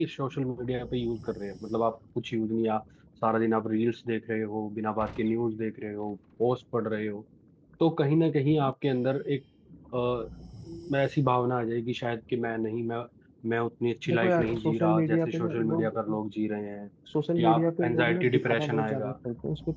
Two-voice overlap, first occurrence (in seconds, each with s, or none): 14.1 s